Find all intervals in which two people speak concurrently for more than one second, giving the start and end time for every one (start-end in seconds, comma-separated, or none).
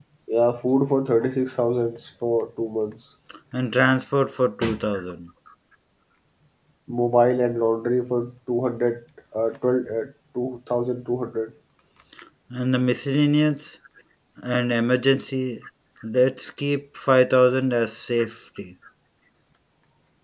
none